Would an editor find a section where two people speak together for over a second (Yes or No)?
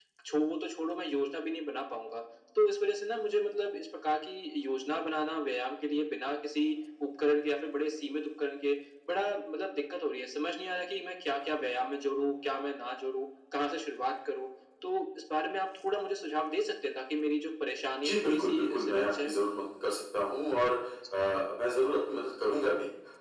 Yes